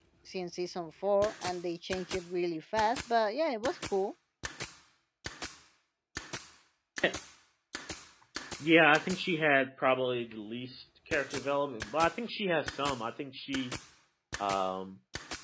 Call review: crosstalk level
none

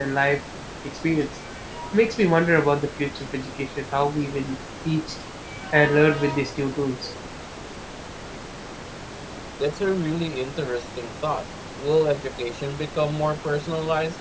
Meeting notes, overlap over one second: none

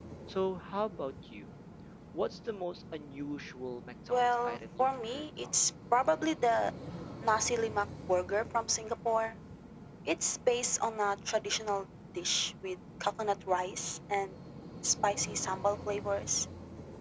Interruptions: present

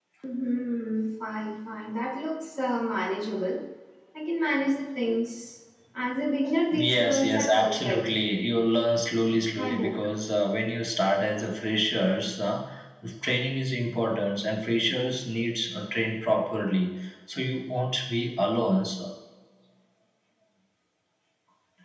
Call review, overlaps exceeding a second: present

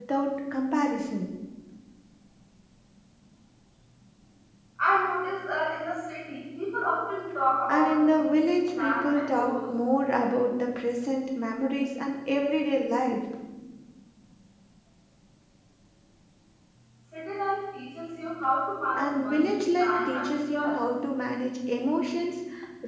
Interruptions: present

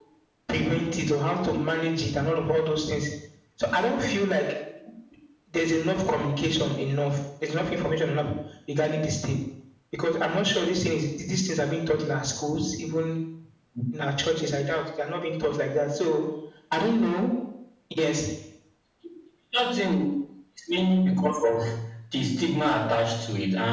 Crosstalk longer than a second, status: none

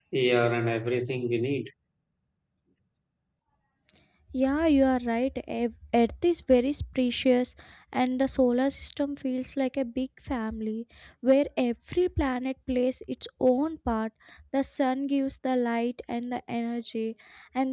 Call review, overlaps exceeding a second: none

